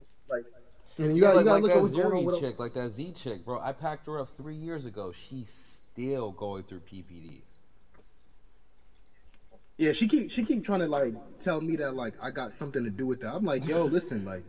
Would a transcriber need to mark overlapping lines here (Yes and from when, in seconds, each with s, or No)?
Yes, from 1.2 s